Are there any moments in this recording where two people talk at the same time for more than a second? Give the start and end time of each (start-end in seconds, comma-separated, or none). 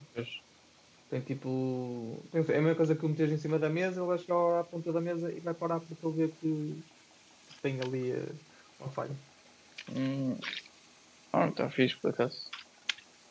none